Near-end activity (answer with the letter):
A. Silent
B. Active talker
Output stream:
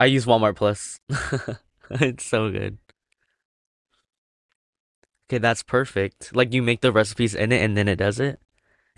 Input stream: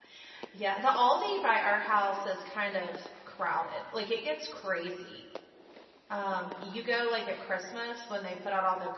B